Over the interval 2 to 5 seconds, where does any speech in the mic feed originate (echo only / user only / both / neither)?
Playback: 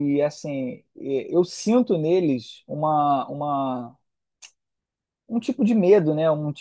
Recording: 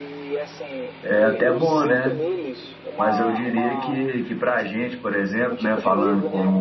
both